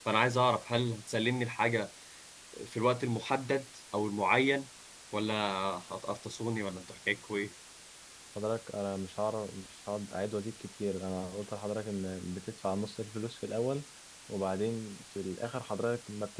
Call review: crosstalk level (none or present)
none